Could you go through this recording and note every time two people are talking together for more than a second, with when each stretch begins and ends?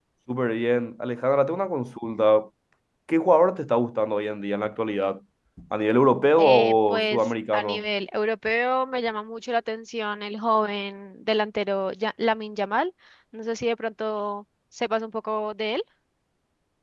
6.4-7.8

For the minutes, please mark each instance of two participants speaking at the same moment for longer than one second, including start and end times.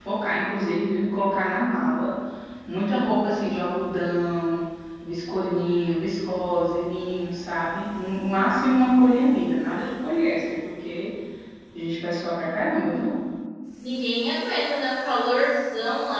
none

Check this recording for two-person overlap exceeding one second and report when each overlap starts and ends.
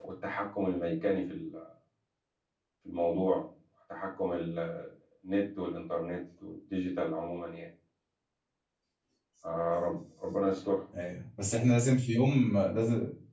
none

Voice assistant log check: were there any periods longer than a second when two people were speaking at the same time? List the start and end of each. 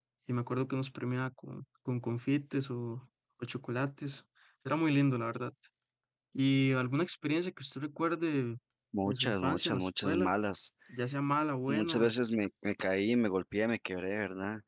9.1-10.3

